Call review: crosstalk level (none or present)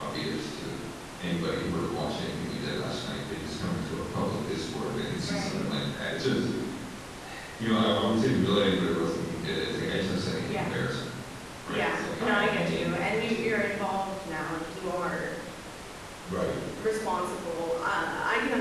present